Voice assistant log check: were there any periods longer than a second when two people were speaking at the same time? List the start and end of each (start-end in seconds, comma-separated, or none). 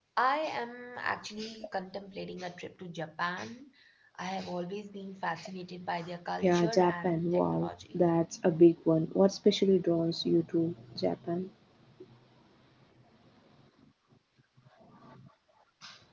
6.4-8.0